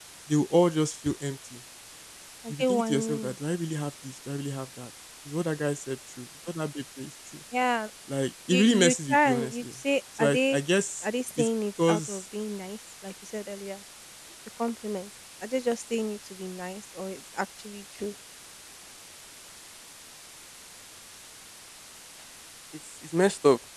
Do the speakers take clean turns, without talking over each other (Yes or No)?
No